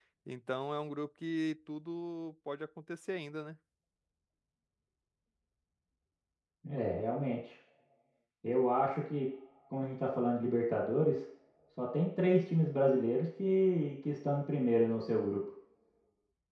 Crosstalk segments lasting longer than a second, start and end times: none

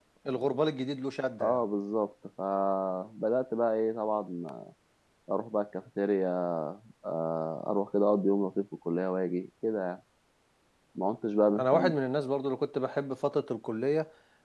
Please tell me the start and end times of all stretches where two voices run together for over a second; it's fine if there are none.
none

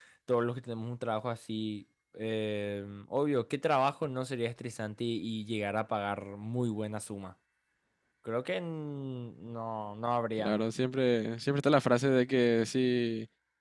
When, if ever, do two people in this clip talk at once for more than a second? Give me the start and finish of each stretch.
none

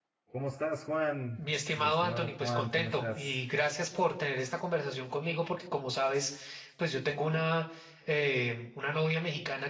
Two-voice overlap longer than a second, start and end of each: 1.8-3.4

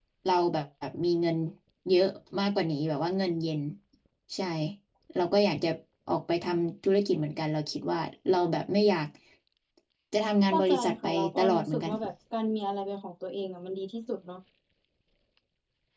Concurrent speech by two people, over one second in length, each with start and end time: 10.5-11.9

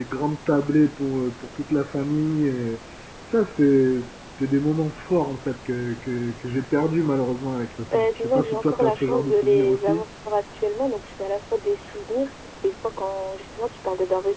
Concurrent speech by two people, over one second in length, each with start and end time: 7.9-10.0

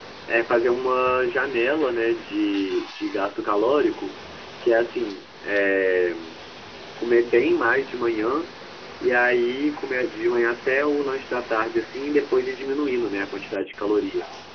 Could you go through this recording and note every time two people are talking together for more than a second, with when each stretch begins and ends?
none

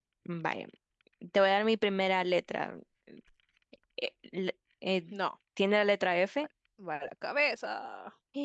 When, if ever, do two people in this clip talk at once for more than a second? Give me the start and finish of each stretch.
none

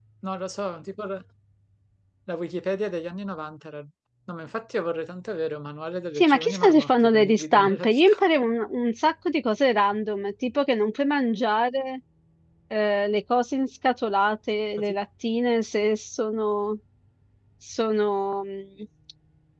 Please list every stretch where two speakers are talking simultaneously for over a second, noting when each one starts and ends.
6.2-8.1

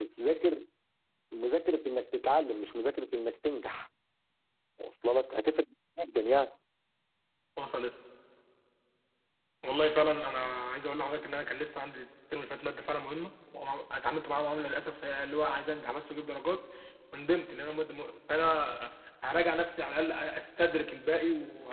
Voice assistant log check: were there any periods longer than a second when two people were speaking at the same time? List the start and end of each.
none

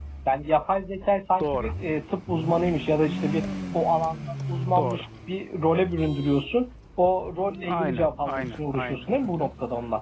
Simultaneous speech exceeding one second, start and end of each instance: 7.6-9.5

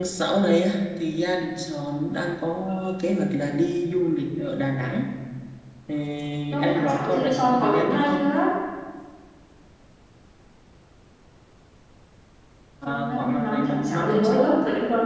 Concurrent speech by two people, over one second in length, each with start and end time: 6.6-8.2, 12.8-14.5

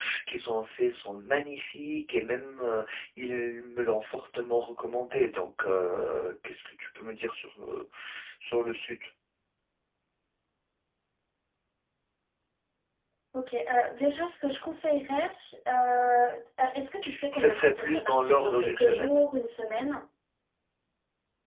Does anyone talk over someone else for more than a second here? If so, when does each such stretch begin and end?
17.3-19.2

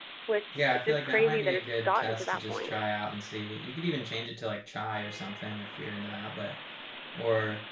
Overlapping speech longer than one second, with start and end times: 0.5-2.7

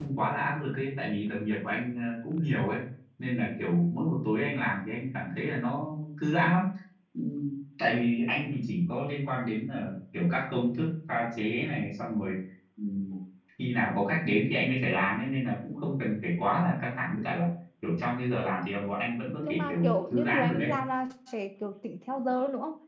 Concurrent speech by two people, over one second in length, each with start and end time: 19.4-20.7

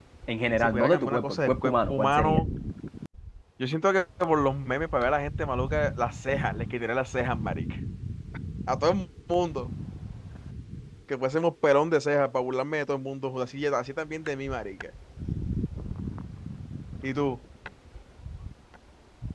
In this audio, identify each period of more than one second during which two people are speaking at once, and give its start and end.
0.6-2.4

